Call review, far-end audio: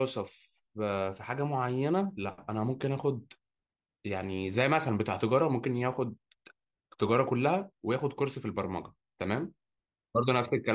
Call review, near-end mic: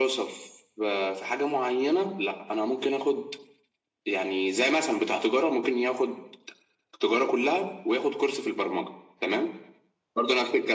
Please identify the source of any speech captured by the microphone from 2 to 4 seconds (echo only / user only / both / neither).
echo only